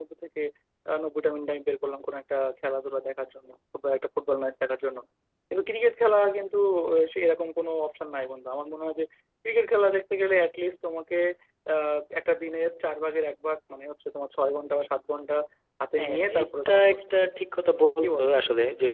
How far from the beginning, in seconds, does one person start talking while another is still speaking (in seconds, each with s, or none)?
16.0 s